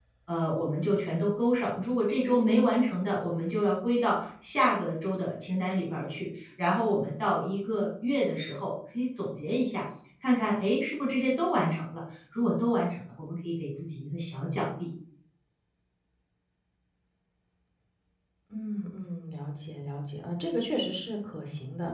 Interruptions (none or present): none